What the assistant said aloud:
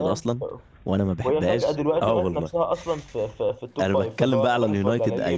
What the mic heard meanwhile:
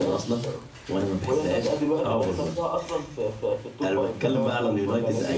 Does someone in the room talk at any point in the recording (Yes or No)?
No